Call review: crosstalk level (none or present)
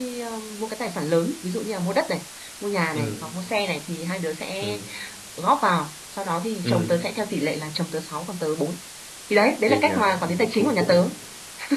present